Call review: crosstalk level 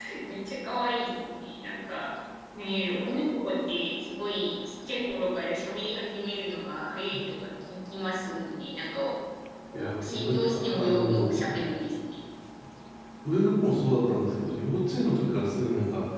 present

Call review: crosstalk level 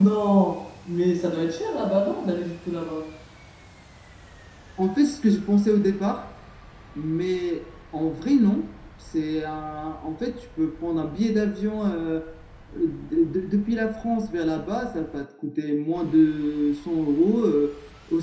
none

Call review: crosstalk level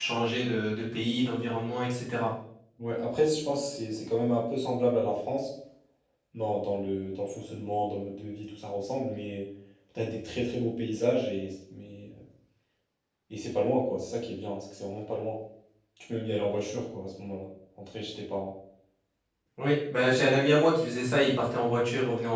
none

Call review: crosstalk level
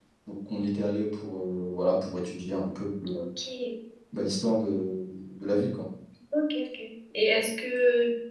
none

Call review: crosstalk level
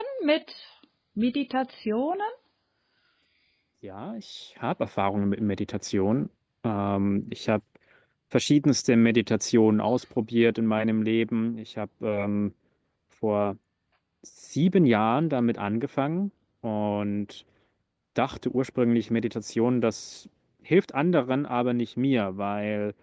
none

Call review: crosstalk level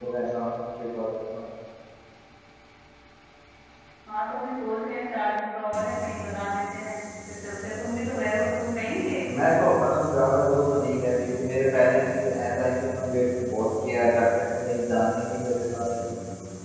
none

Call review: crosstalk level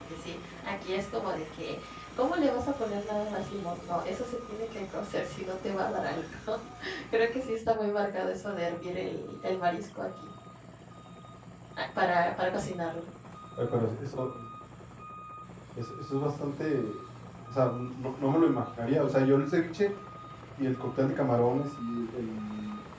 none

